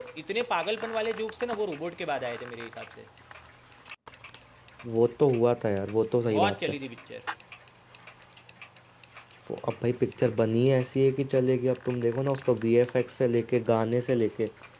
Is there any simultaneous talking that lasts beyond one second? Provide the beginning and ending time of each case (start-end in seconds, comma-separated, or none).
none